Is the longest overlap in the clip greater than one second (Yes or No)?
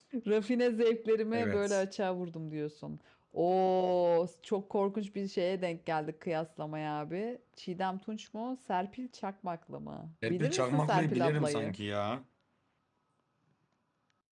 Yes